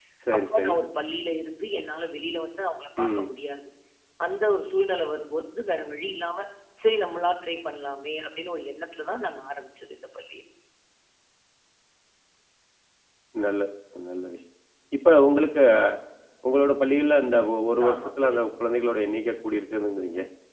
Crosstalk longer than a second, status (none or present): none